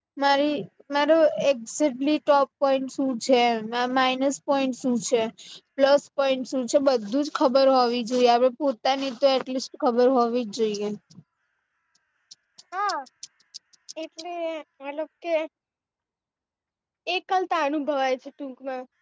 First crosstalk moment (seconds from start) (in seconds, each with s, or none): none